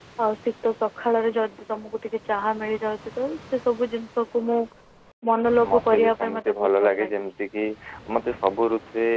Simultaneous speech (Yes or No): Yes